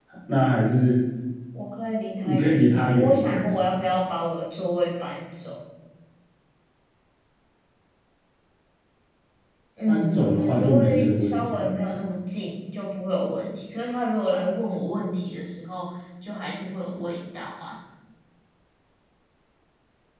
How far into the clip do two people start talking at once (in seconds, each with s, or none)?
2.2 s